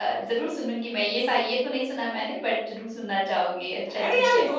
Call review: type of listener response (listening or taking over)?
taking over